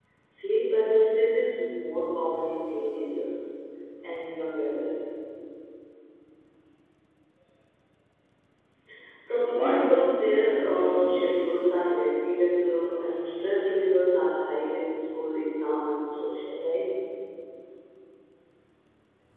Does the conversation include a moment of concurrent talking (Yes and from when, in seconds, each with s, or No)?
Yes, from 9.5 s